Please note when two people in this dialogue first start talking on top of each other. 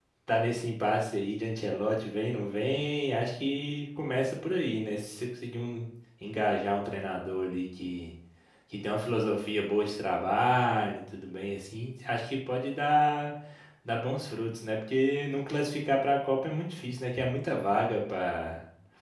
none

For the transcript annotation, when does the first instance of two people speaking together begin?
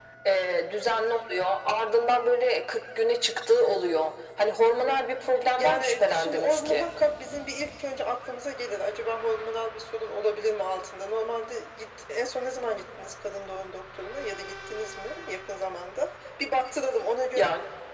5.6 s

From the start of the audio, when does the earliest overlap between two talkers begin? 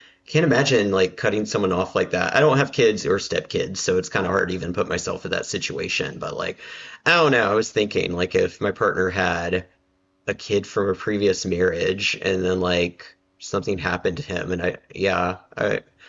none

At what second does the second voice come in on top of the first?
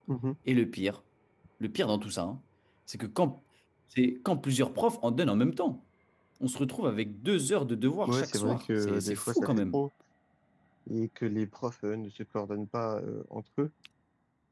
8.0 s

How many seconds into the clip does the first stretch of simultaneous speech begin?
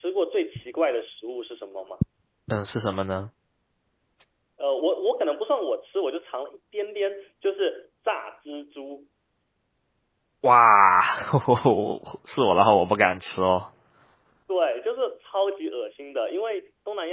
none

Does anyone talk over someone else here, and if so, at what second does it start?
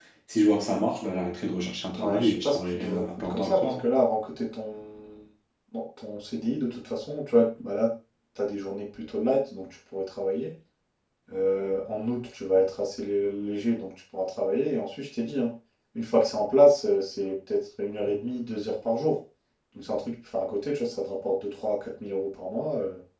2.0 s

